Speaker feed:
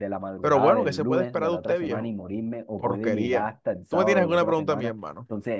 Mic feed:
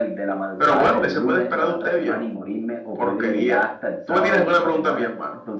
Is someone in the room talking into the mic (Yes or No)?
No